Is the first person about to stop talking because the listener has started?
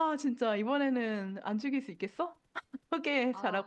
Yes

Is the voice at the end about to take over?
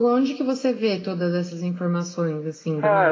Yes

